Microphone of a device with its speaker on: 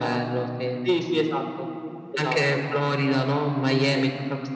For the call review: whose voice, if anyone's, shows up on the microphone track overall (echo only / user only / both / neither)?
echo only